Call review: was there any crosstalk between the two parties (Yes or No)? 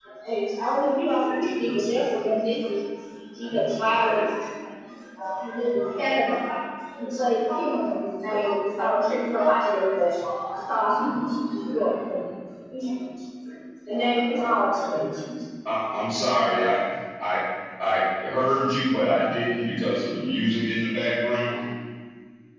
No